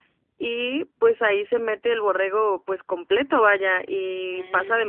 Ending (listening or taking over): listening